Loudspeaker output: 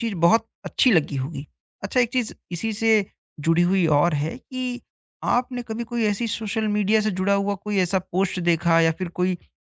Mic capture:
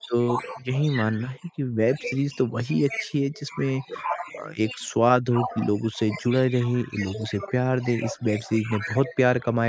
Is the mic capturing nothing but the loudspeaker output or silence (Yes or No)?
No